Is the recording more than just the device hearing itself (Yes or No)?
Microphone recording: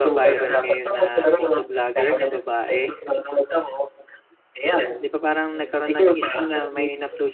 Yes